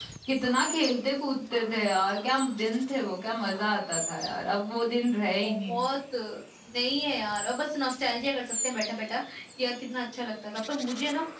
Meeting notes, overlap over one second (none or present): none